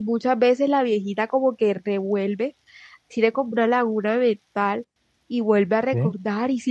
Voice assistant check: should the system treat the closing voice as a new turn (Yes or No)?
No